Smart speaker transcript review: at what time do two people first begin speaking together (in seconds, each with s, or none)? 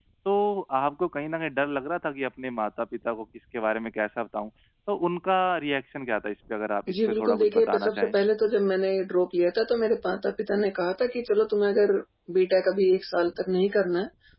6.9 s